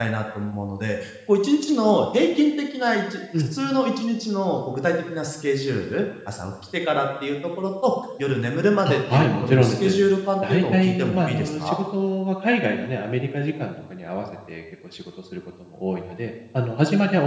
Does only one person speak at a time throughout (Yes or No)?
No